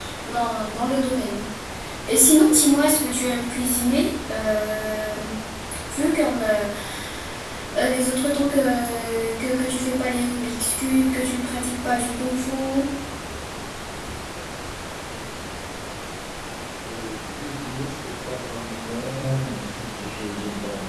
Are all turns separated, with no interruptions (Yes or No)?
Yes